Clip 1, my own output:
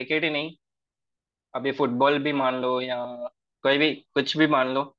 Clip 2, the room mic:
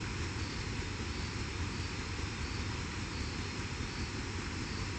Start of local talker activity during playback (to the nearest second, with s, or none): none